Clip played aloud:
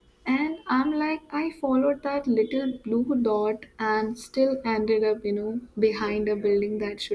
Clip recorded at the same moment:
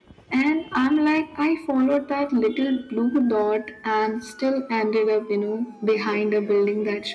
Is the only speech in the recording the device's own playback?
Yes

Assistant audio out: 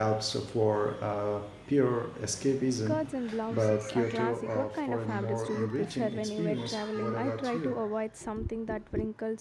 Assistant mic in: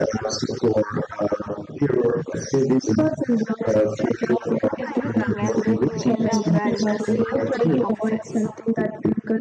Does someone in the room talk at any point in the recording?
Yes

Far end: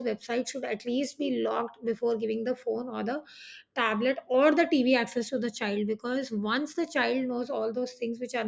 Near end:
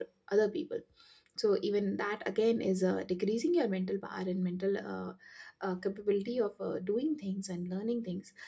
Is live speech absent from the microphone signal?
No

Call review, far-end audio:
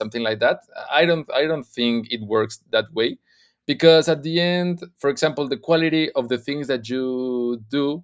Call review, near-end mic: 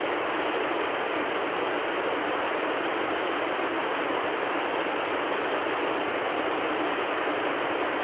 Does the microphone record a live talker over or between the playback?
No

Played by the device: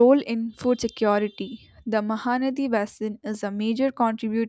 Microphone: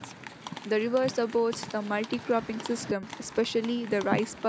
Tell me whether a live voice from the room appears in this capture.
Yes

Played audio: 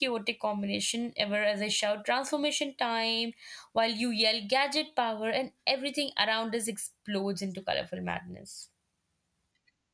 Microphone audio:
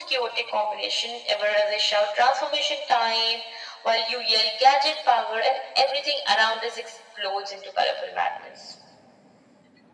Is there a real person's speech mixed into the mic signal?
No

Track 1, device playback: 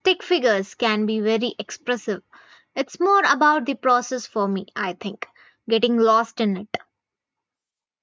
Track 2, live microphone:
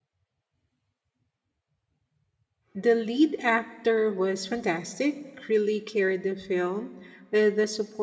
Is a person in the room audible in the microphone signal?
Yes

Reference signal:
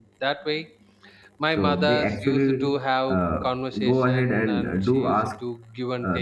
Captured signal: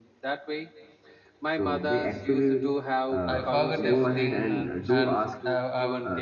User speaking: Yes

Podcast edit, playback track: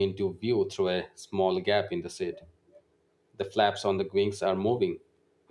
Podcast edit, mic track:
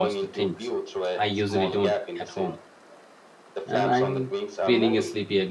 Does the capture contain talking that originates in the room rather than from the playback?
Yes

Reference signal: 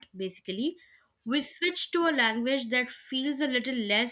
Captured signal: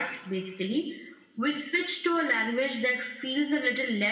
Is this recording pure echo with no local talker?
Yes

